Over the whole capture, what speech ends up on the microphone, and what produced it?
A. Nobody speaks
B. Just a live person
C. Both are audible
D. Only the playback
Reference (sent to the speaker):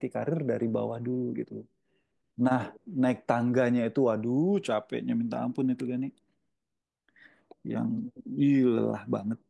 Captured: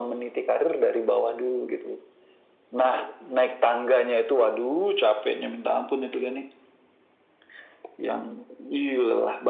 D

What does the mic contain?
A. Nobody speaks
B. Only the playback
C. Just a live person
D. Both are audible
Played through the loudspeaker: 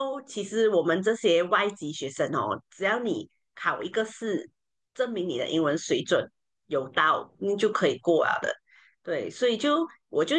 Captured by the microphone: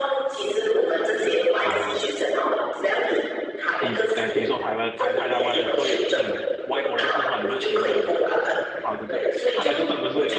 D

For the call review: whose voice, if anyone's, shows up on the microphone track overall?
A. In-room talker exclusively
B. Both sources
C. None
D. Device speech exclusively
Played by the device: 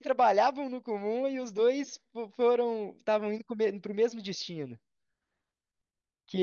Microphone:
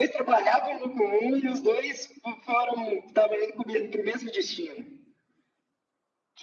D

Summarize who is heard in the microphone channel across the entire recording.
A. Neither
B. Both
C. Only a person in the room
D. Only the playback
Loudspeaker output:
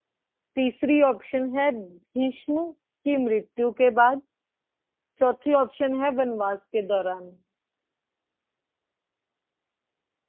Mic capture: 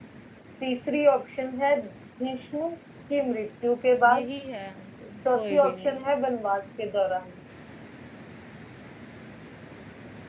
B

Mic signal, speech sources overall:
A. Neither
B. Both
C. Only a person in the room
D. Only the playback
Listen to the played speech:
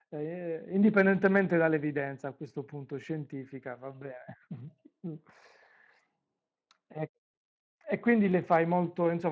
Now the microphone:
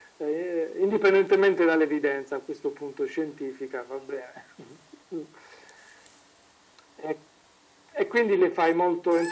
D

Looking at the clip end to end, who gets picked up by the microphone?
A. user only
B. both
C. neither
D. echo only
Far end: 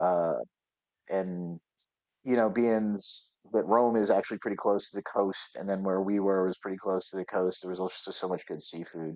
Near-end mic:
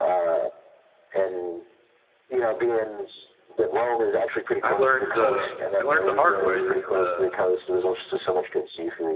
B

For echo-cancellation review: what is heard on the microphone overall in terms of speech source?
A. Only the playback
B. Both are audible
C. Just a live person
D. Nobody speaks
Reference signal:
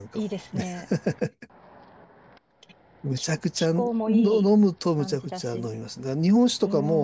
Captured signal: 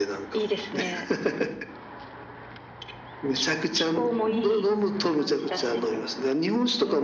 A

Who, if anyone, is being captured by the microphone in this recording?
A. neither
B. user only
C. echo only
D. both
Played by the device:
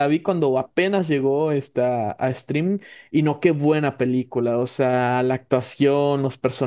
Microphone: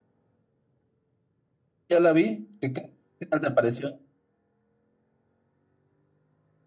B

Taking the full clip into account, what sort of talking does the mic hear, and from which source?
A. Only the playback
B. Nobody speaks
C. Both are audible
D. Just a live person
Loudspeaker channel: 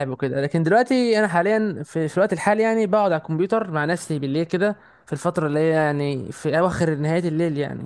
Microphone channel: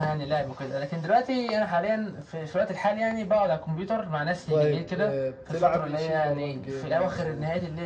C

